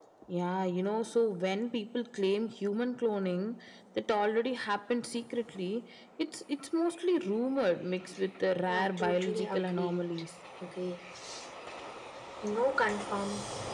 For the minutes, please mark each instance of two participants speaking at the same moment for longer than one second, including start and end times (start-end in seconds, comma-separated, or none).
8.7-10.0